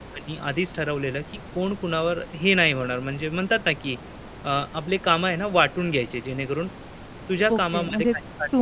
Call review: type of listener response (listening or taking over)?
taking over